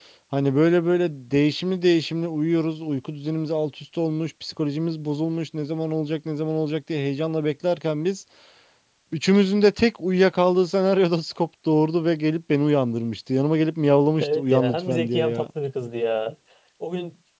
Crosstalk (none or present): present